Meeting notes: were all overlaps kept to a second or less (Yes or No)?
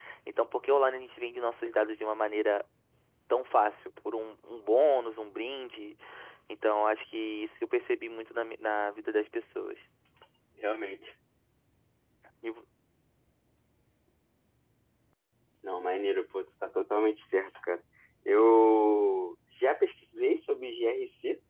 Yes